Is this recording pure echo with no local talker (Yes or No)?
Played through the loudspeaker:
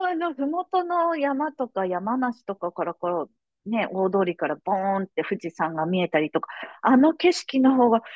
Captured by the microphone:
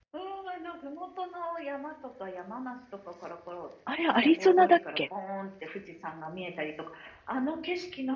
No